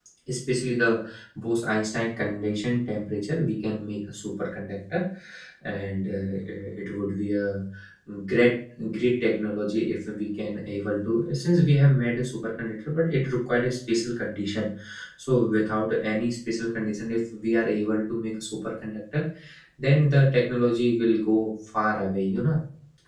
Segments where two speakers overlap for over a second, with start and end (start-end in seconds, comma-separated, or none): none